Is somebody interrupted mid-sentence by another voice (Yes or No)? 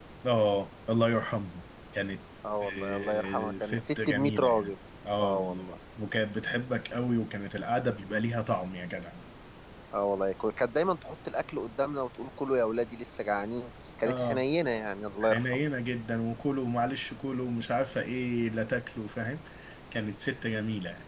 Yes